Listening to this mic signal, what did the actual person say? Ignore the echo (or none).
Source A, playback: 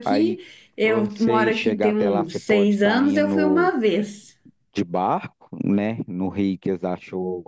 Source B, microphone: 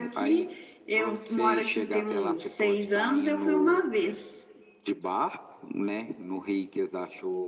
none